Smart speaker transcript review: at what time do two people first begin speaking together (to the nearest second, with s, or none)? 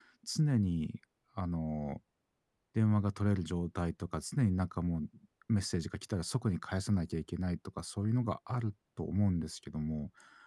none